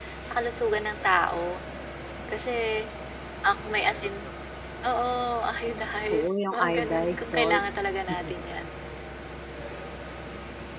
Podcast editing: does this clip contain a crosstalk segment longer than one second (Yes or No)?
Yes